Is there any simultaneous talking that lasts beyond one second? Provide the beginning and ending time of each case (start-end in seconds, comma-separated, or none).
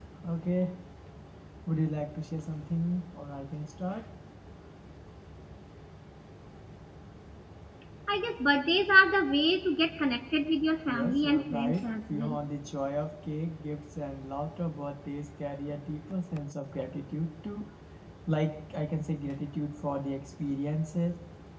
10.9-12.4